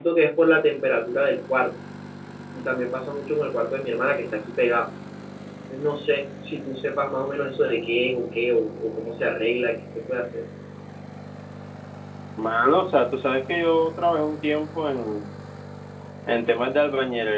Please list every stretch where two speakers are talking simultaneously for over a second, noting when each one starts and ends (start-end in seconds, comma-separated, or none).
none